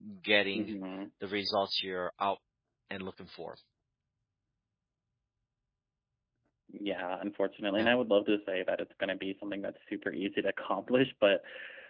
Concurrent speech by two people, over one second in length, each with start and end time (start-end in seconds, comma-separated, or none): none